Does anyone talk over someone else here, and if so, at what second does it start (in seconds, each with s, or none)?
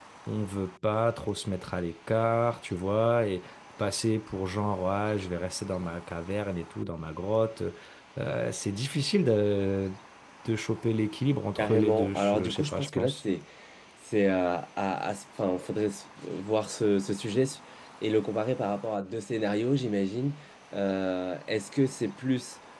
11.6 s